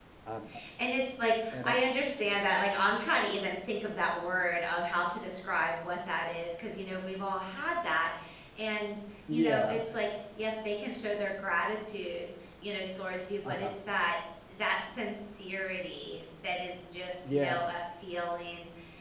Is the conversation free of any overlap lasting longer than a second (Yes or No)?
Yes